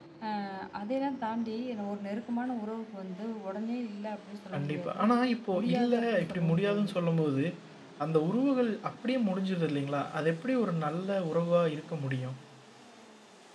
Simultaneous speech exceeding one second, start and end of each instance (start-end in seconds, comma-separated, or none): 5.5-6.9